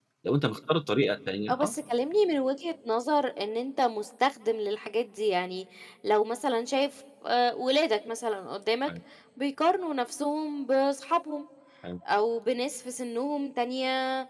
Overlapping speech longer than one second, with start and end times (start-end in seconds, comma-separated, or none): none